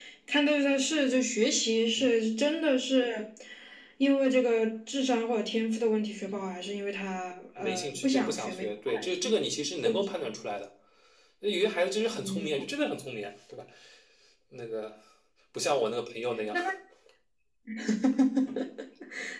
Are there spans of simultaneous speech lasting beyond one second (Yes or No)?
Yes